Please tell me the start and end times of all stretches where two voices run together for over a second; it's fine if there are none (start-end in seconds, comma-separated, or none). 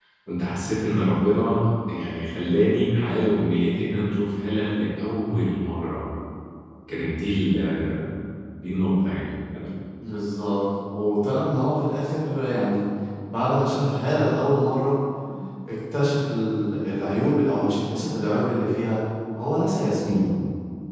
none